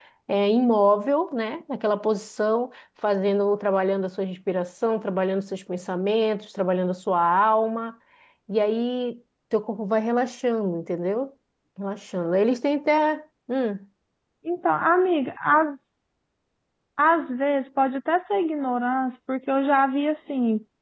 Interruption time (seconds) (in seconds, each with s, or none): none